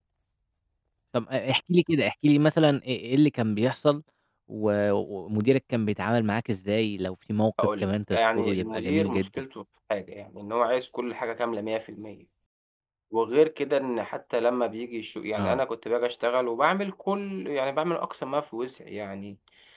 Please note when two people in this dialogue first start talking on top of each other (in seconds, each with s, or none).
7.6 s